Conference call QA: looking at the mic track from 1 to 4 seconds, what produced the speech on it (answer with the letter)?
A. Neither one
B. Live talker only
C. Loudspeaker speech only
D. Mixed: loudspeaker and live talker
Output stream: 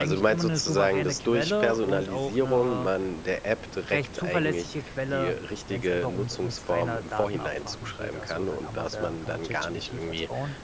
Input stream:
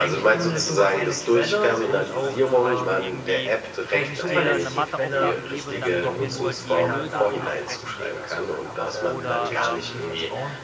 D